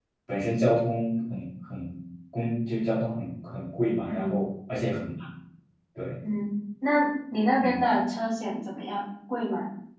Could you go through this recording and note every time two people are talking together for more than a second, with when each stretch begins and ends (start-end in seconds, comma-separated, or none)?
none